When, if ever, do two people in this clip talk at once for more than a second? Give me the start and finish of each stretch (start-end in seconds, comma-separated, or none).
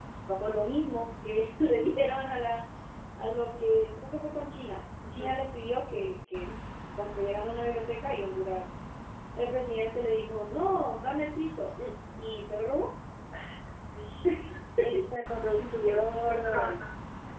15.6-16.8